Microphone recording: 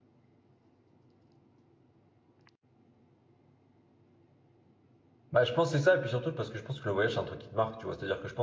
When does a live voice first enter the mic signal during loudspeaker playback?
5.3 s

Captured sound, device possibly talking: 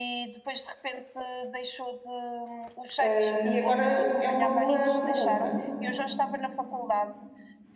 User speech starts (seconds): 3.0 s

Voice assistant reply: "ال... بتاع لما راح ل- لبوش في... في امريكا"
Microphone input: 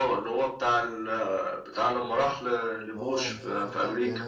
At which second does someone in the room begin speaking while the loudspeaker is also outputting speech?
2.9 s

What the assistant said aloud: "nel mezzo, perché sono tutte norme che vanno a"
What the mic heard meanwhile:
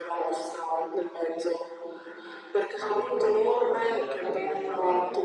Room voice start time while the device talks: 2.7 s

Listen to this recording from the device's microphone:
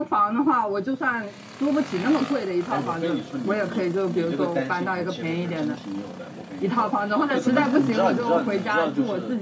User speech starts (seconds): 2.7 s

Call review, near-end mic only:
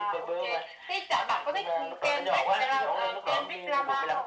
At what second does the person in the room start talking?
none

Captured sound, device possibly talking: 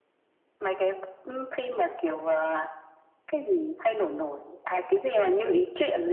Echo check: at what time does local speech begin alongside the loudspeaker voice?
none

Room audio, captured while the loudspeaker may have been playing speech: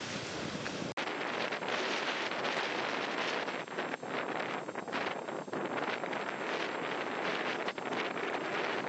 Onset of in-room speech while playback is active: none

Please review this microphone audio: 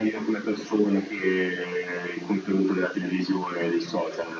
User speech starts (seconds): none

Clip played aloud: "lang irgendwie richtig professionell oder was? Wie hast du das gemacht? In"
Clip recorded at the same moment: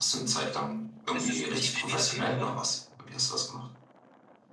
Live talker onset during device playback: 1.1 s

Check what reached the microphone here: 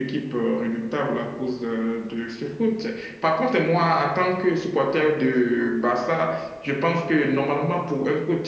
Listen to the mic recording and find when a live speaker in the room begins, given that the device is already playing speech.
none

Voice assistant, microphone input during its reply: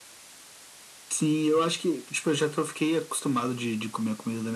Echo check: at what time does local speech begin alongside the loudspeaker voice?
none

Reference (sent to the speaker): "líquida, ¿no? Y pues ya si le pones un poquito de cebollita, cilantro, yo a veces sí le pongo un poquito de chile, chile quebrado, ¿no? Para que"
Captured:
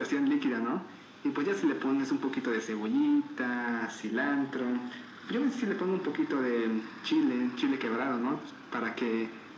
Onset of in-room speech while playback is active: none

